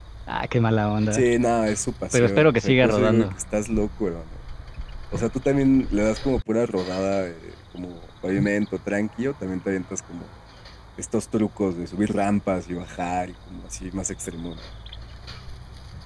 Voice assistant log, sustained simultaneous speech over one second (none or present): present